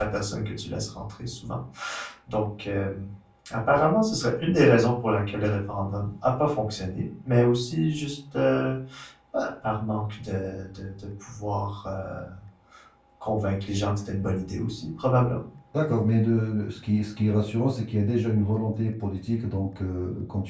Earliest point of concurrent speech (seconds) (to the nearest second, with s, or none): none